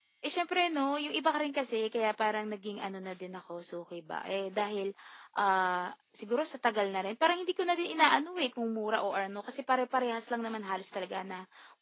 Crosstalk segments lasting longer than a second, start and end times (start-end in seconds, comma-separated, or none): none